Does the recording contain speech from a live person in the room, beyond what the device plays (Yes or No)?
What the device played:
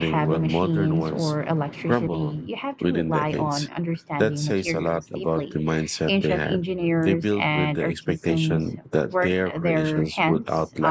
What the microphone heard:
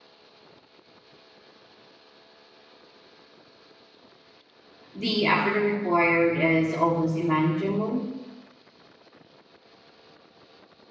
Yes